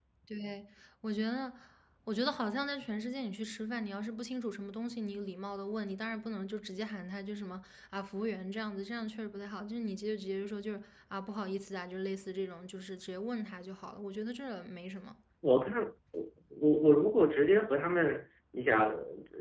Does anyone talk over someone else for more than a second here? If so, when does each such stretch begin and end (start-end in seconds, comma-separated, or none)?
none